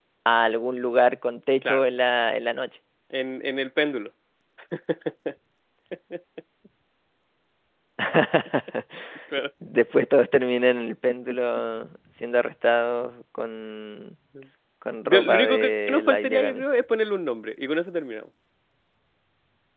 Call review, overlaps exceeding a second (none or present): present